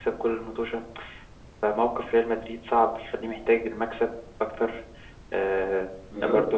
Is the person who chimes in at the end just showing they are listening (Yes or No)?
No